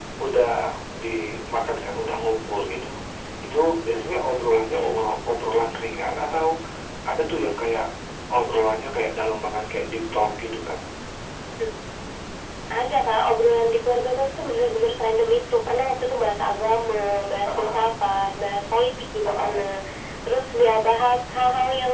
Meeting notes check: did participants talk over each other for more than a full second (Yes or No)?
No